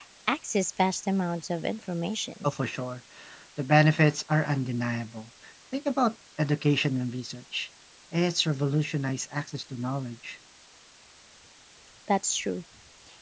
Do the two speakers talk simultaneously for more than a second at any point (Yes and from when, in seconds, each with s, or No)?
No